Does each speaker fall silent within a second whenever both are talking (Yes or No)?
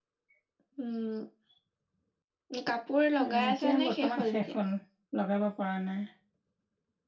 No